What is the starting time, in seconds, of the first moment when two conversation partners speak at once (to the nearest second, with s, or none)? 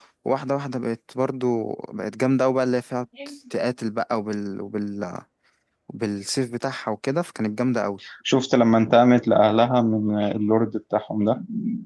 none